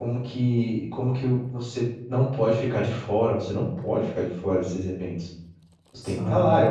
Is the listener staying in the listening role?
Yes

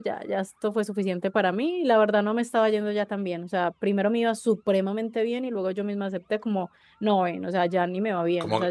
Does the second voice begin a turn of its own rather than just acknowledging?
Yes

